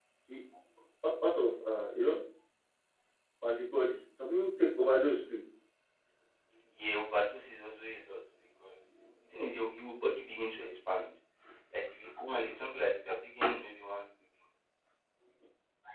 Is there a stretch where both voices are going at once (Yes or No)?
No